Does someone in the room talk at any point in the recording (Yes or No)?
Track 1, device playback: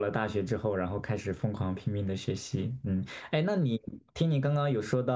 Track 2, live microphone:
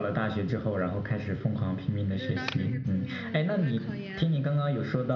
Yes